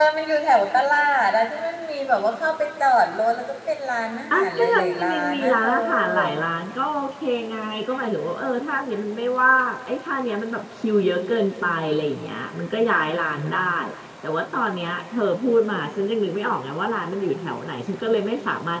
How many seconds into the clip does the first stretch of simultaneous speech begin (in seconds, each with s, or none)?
4.3 s